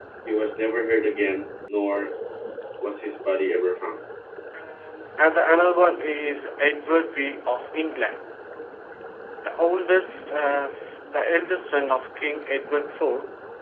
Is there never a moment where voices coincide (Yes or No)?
Yes